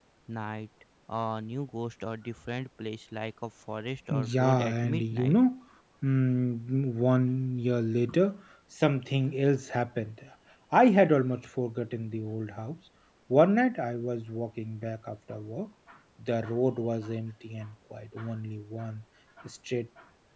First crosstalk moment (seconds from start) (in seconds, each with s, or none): 4.1 s